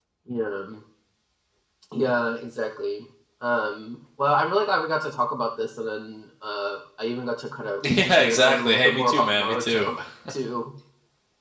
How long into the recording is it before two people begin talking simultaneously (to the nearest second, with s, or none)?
8 s